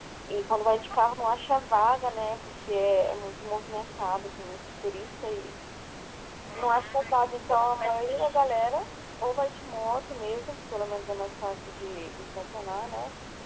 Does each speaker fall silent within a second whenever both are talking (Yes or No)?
No